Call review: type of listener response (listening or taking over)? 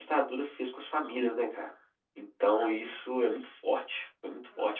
taking over